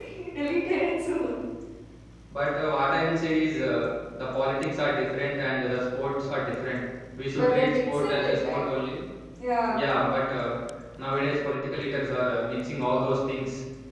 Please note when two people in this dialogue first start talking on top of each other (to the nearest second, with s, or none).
7 s